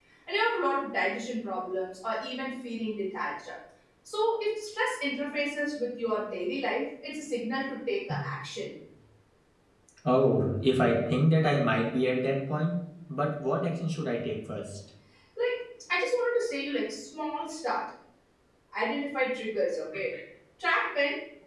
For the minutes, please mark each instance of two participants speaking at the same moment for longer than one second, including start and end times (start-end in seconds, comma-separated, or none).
none